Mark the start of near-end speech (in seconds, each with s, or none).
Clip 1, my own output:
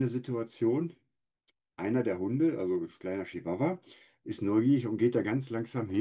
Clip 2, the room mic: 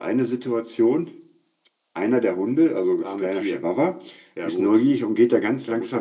3.0 s